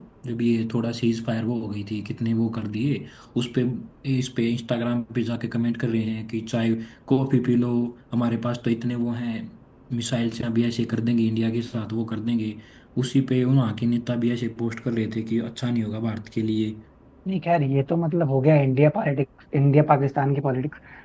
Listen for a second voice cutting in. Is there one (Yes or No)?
No